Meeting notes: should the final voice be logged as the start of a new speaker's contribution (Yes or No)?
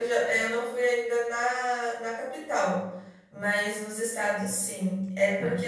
No